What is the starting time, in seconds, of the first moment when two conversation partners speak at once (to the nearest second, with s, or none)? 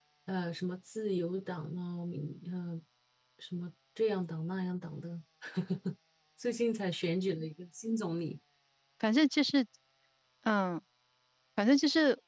none